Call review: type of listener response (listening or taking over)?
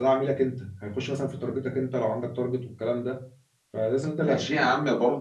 taking over